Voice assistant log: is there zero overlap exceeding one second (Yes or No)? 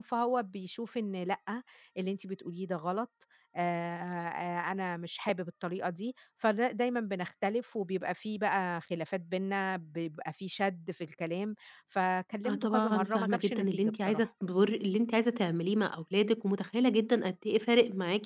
No